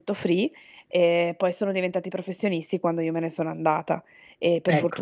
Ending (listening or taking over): listening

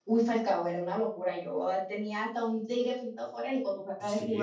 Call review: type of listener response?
taking over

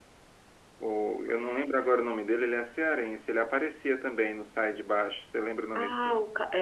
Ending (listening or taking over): taking over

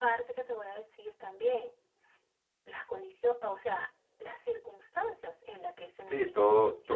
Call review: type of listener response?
taking over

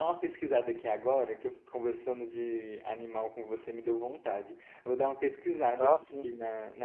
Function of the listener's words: listening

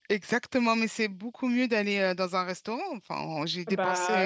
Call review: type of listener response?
taking over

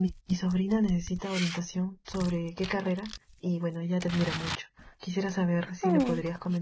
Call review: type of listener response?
listening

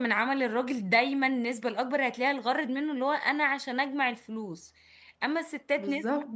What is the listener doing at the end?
listening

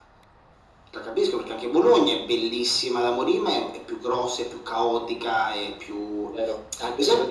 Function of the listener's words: taking over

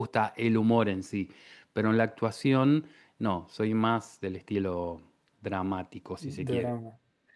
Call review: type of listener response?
taking over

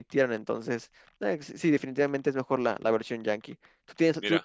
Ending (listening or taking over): listening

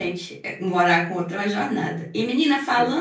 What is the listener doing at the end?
listening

